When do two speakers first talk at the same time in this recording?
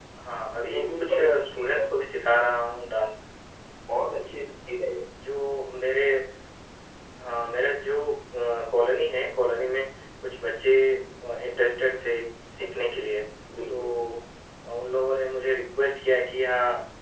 0.7 s

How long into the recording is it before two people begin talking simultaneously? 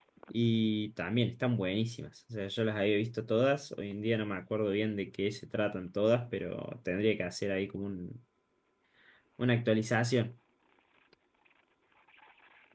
none

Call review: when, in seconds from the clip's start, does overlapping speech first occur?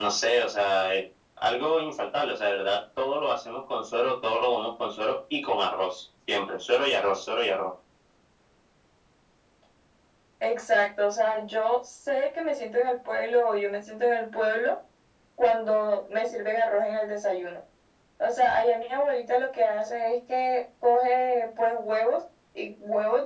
none

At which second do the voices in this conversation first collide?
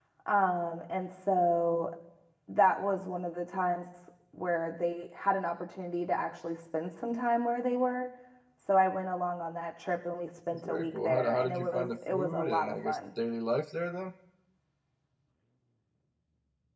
10.5 s

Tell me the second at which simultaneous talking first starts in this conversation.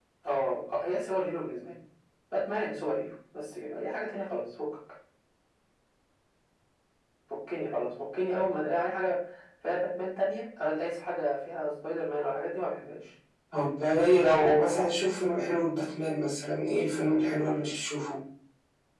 none

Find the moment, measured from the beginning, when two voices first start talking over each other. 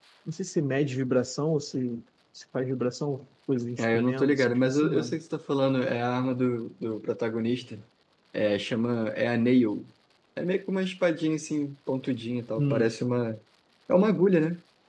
3.8 s

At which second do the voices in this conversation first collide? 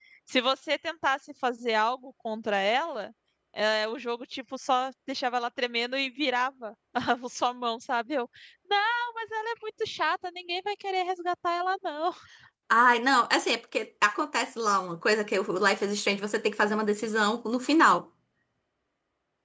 none

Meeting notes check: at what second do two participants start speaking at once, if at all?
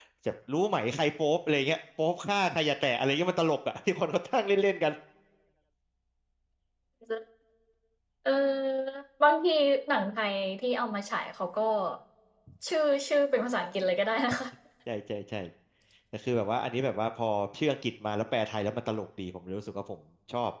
none

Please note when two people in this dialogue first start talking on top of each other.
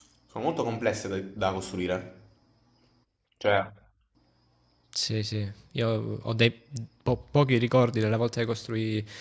none

